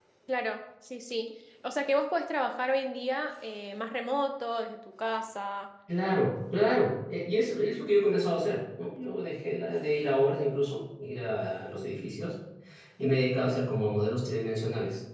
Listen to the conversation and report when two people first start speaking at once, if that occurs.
none

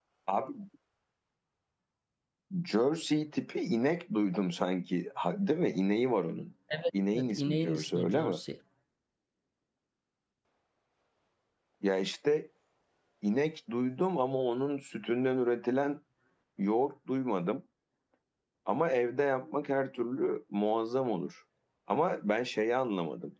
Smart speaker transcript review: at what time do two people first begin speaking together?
7.1 s

